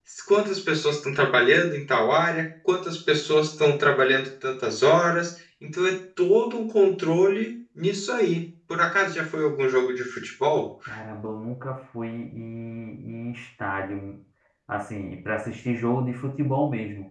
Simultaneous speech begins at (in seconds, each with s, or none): none